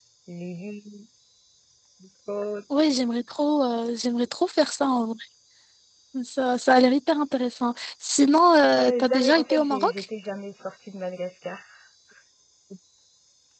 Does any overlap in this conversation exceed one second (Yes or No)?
Yes